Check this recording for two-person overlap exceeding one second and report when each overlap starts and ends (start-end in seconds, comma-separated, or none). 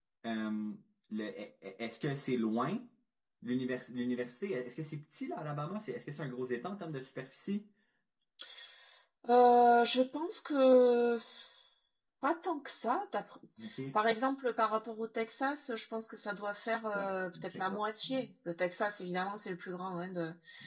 16.9-18.3